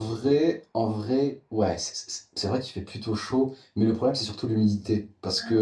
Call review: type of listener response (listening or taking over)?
listening